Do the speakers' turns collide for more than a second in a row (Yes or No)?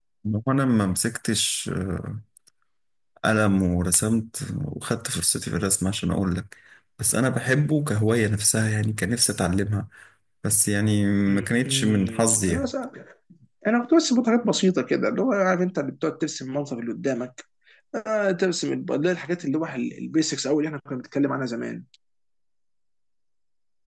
Yes